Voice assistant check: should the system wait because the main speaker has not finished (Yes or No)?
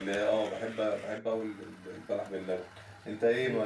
Yes